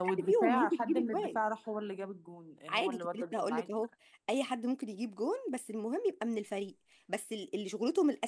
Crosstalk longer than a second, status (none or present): present